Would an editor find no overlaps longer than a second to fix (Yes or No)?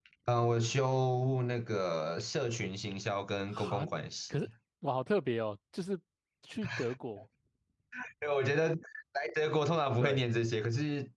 Yes